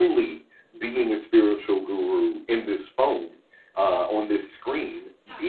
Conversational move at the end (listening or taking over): listening